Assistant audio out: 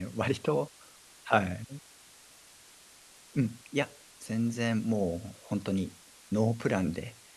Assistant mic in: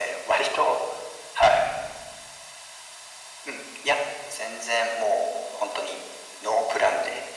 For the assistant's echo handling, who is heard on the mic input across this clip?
echo only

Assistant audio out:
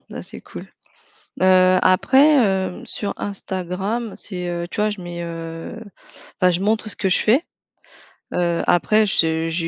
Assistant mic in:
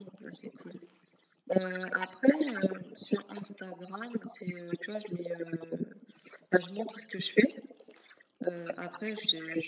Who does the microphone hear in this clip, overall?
echo only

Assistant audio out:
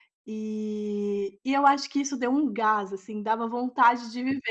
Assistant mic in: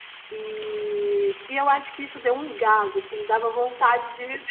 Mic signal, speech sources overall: echo only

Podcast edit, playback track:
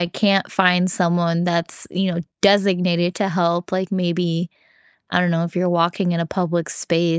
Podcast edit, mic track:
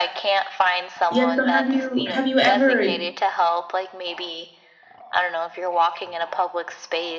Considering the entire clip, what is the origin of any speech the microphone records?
both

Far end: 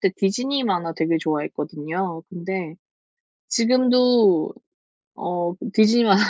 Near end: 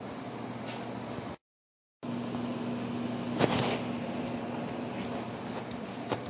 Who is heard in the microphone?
neither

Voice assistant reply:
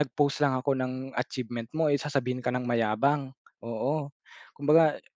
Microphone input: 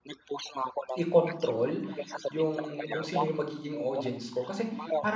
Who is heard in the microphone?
both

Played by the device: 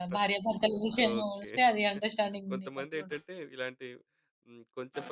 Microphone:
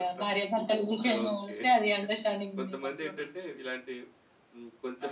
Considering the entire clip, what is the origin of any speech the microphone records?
echo only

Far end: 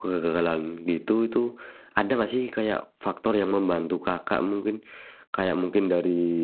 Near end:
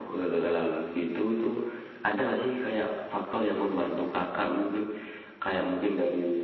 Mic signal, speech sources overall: echo only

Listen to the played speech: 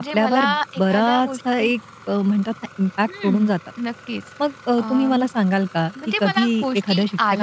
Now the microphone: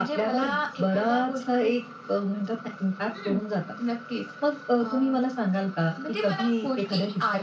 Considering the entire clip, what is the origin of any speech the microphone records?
echo only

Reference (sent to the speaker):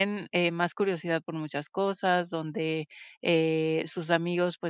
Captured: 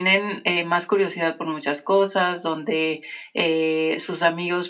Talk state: echo only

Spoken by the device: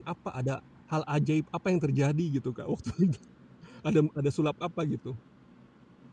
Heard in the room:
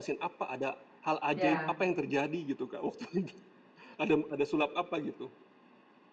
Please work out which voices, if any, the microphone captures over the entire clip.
both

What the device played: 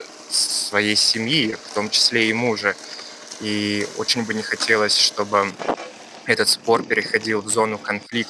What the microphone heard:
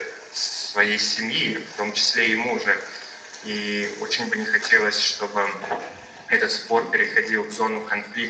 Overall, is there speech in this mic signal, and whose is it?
echo only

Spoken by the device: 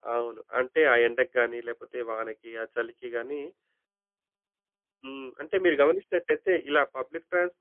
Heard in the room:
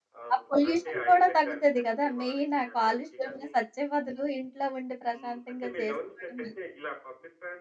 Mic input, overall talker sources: both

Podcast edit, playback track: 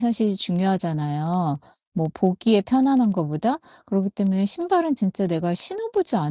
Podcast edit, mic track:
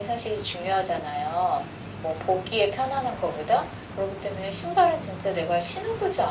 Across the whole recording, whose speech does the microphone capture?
echo only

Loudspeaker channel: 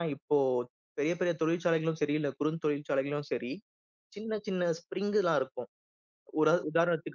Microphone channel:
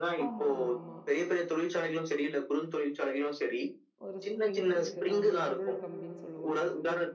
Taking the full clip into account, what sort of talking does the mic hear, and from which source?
both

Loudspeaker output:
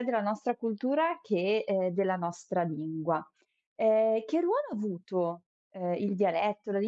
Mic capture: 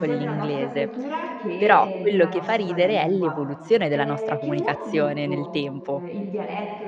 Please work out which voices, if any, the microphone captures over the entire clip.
both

